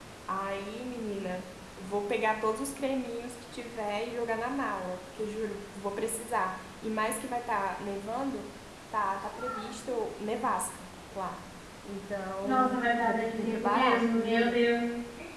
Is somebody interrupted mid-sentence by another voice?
Yes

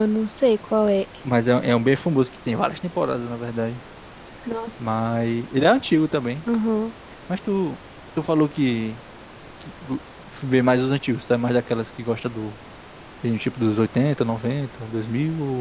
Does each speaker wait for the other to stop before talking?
Yes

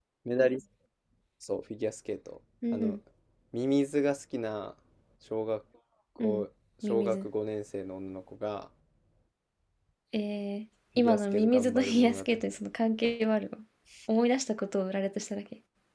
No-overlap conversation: No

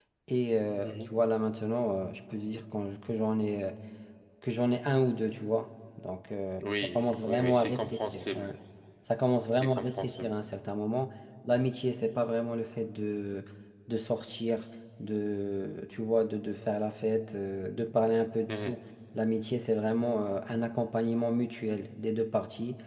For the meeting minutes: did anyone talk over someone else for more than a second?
Yes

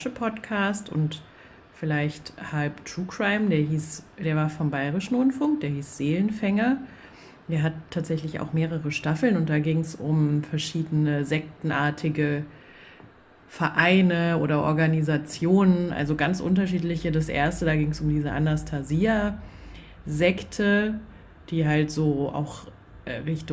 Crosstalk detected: No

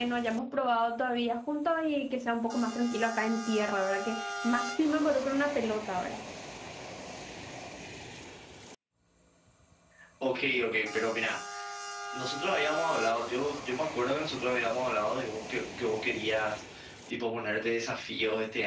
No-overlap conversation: Yes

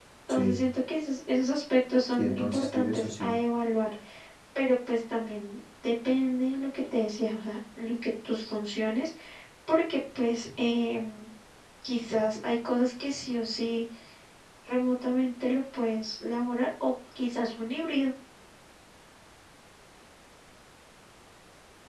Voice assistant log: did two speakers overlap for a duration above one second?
Yes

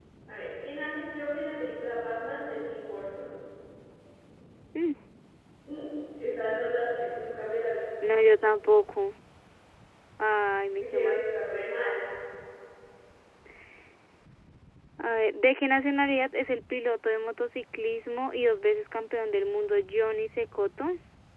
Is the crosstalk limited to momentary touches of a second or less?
Yes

